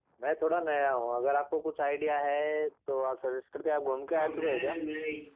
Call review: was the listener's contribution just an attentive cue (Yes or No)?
No